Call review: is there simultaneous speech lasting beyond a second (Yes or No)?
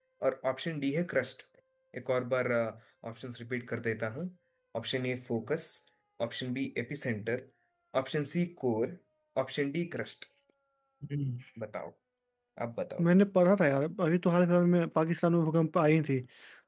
No